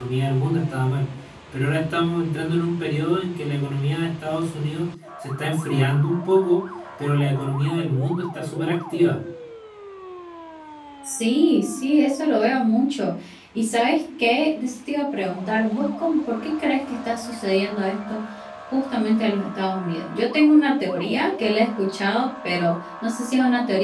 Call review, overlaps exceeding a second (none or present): none